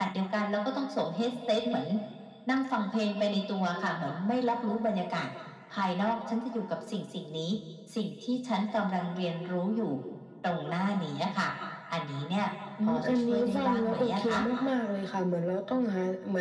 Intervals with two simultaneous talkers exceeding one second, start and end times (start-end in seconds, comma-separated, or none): 12.8-14.2